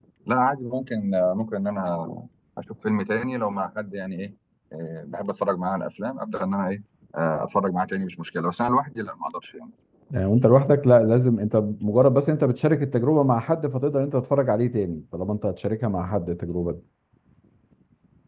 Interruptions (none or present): none